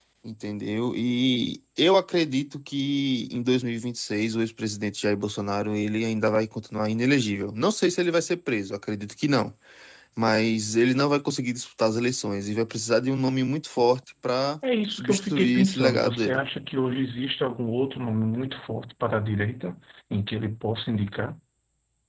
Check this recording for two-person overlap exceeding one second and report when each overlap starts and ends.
14.9-16.4

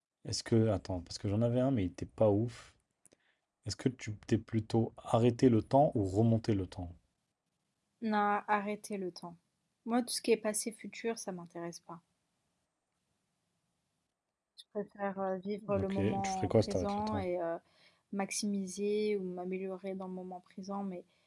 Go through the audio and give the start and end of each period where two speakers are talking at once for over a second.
15.8-17.2

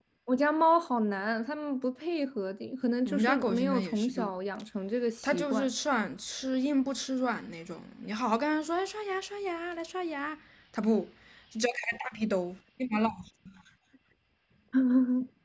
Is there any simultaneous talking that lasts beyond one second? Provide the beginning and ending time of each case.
3.0-4.3

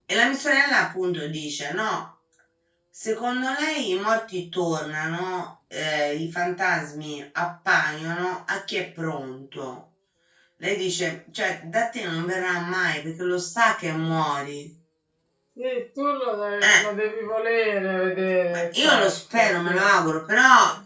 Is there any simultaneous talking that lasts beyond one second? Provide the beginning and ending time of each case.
18.5-19.8

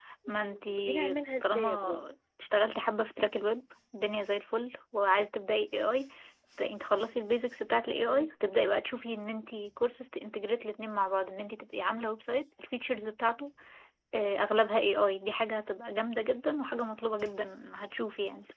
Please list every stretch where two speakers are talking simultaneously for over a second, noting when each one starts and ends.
0.7-2.0

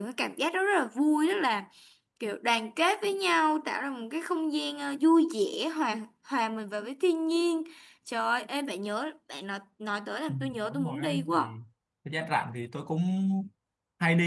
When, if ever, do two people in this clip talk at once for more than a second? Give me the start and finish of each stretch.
10.3-11.5

